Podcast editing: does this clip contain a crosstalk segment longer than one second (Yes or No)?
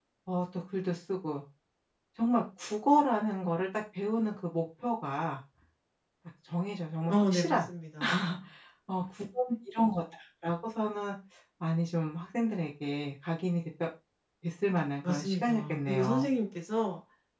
Yes